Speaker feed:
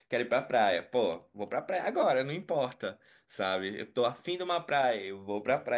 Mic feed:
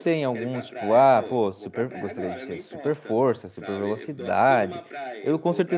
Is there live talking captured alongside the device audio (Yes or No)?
Yes